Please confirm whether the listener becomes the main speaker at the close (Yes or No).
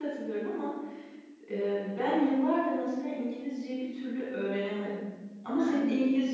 No